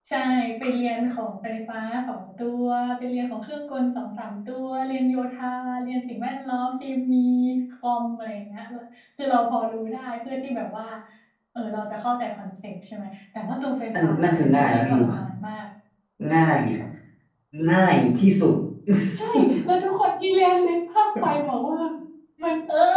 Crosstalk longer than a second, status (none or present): present